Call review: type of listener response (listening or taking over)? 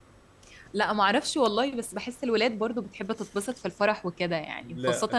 listening